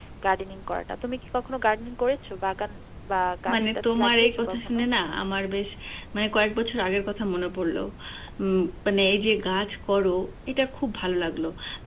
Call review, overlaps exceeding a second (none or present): present